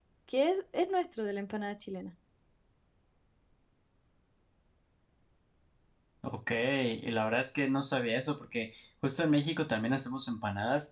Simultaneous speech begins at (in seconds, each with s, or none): none